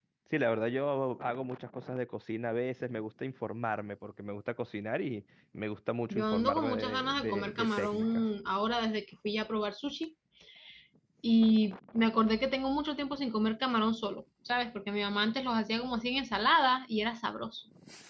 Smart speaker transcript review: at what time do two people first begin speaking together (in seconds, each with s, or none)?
6.1 s